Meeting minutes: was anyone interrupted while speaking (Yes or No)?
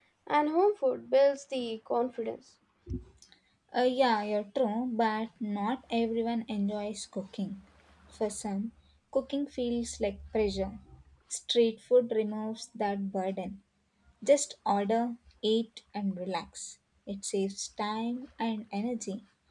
No